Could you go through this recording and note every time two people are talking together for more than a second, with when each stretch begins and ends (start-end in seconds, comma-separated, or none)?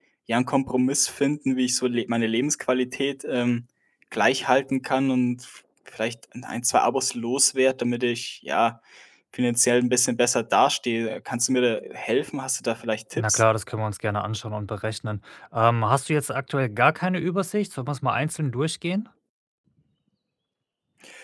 none